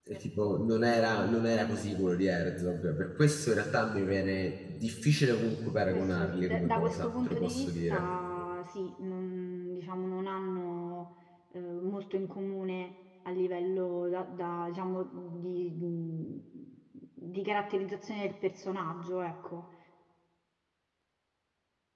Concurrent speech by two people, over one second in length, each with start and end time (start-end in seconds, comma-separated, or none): 5.9-8.1